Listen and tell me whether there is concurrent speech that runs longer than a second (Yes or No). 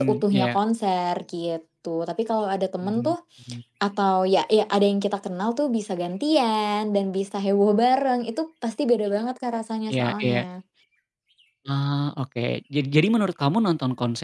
No